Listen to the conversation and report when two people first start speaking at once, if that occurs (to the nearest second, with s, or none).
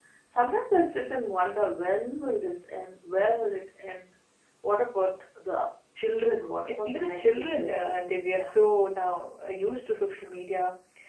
7 s